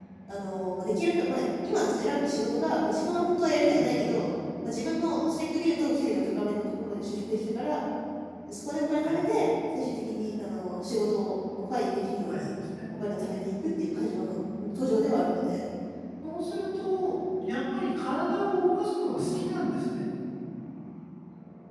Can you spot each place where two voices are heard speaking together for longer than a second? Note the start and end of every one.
none

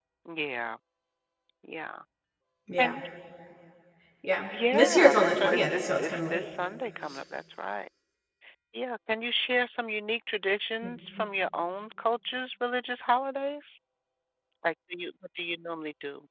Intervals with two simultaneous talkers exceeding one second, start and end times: 4.7-6.4

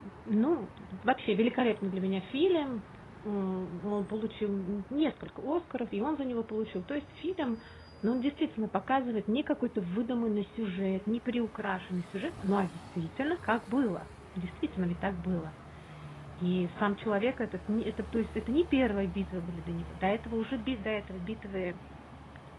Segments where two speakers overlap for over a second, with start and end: none

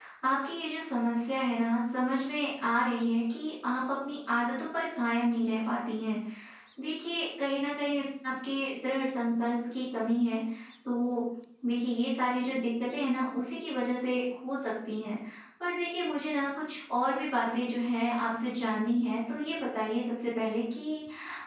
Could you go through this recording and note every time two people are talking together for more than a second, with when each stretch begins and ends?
none

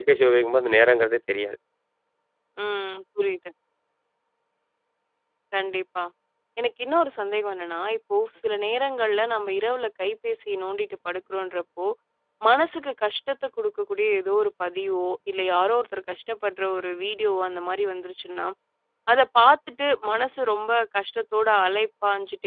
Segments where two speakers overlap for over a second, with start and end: none

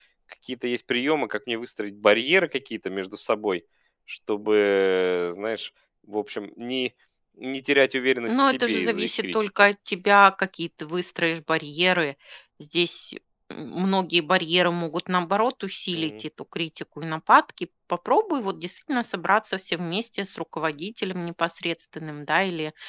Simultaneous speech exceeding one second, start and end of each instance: 8.3-9.6

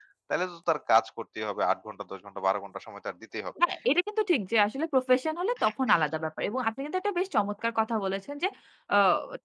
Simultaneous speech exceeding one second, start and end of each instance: none

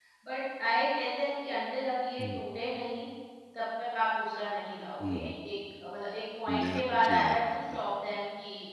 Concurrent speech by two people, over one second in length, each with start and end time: 6.5-7.8

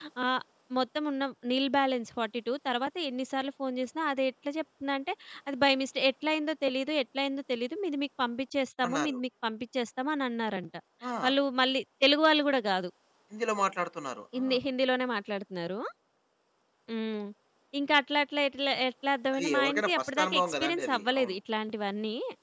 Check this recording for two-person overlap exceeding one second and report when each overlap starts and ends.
19.3-21.4

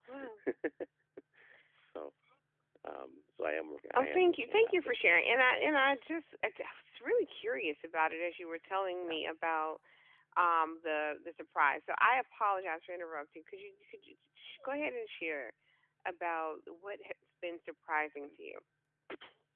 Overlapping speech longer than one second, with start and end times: 4.0-5.2

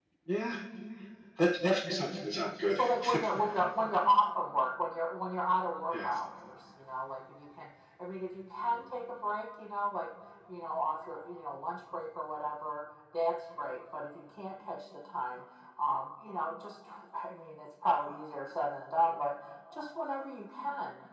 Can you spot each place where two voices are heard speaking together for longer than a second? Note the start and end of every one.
none

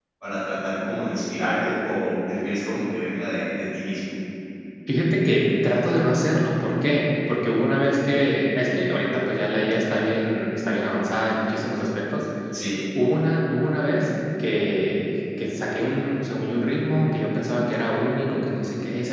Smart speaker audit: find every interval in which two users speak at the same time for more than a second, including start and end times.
none

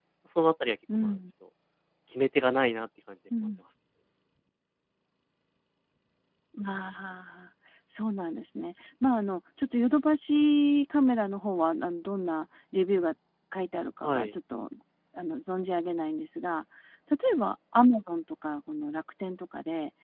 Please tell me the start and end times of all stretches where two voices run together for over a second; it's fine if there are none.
none

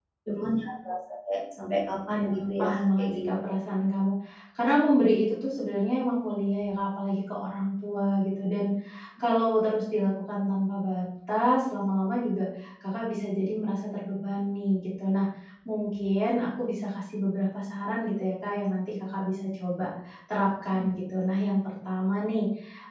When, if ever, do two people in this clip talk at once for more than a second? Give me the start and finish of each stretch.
2.1-3.4

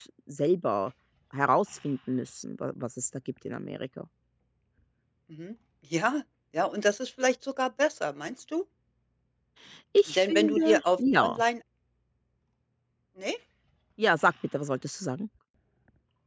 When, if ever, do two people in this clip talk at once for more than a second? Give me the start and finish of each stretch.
10.1-11.4

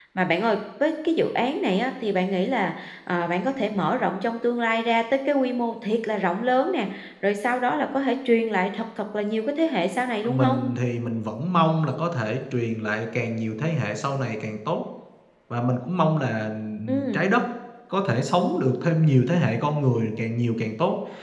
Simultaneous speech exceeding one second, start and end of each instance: none

